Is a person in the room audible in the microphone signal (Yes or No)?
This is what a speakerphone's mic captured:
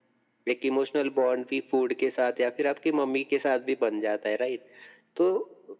No